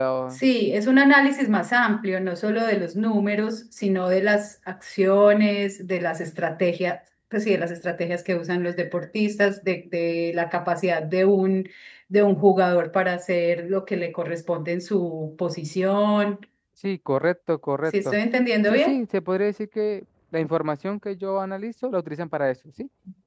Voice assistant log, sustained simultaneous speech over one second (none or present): none